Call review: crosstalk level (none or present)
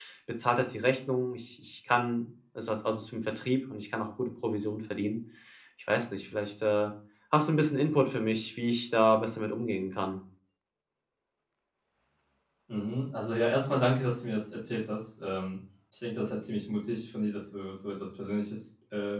none